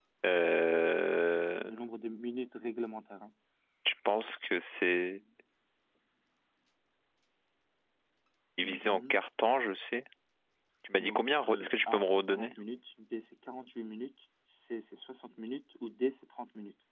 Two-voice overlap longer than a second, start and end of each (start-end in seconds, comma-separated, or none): 11.0-12.5